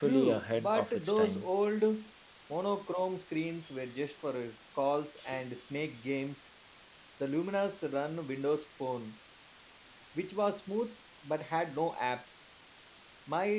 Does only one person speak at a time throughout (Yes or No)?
No